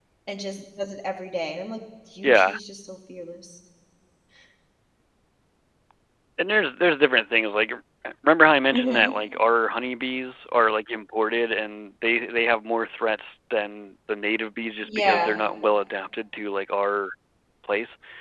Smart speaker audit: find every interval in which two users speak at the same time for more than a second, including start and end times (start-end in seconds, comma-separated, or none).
none